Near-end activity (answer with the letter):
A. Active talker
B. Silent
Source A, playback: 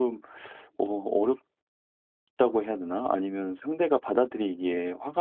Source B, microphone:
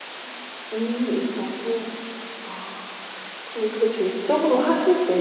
A